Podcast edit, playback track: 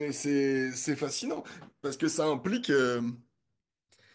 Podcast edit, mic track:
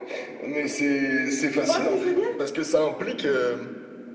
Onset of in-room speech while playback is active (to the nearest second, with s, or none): 2 s